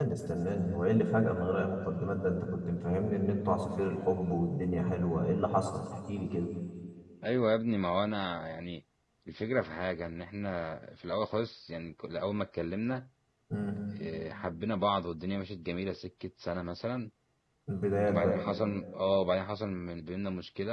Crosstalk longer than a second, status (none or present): none